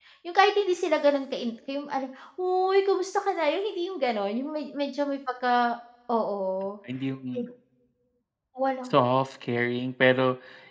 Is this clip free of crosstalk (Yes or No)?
Yes